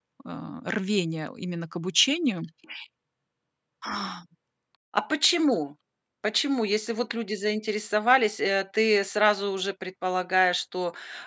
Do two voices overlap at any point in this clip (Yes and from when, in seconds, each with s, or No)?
No